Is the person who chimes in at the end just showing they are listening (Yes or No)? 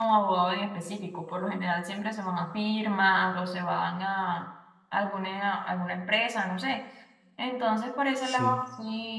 Yes